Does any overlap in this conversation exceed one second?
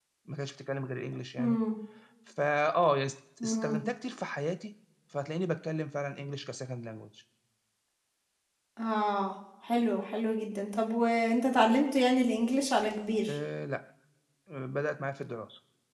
No

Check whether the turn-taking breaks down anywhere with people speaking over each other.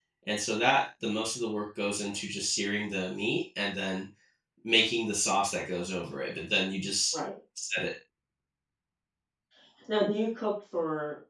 No

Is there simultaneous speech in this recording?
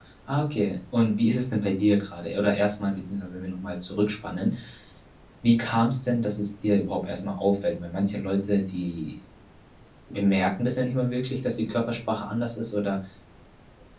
No

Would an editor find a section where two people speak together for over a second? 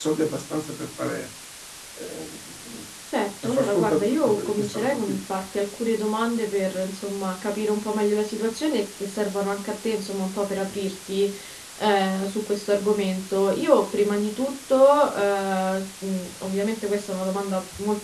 Yes, from 3.4 s

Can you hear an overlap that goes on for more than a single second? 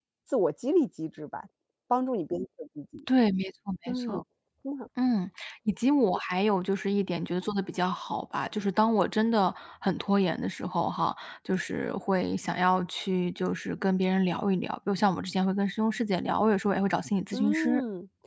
No

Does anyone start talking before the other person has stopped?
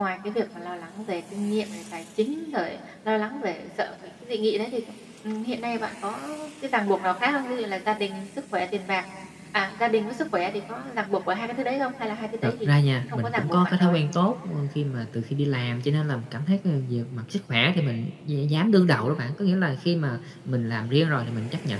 Yes, from 12.4 s

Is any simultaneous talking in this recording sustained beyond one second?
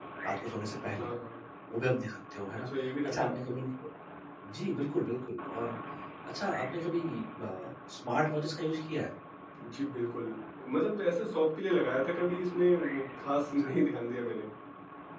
No

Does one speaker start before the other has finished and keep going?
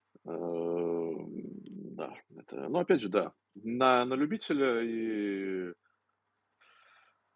No

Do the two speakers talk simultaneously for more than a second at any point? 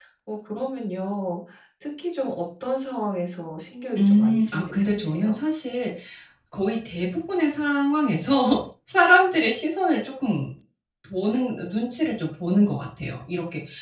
Yes, from 4.0 s

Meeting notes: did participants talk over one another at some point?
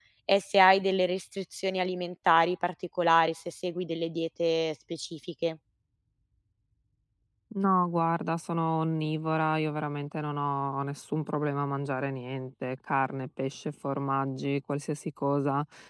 No

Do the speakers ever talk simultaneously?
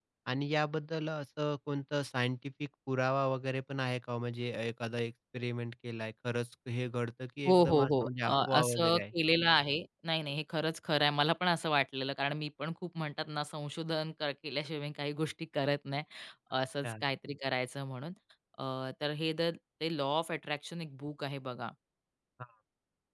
Yes, from 7.4 s

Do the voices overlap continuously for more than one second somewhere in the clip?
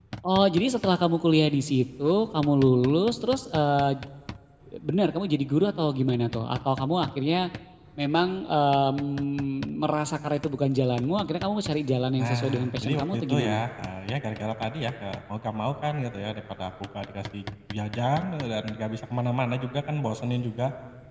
Yes, from 12.2 s

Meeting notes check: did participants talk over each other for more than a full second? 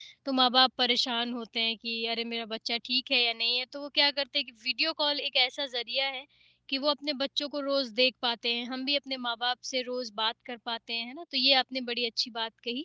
No

